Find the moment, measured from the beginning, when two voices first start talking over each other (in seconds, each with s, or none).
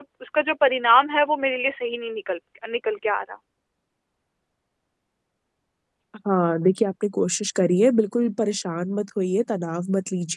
none